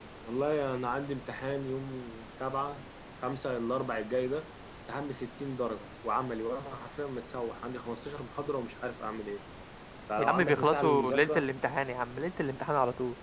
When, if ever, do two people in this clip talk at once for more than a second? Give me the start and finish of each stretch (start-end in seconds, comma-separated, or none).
10.2-11.5